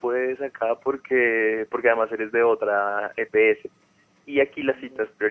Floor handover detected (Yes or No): No